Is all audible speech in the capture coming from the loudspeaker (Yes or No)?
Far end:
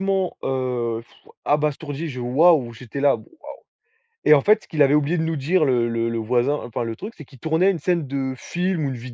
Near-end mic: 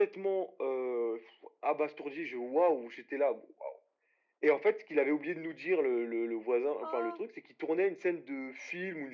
No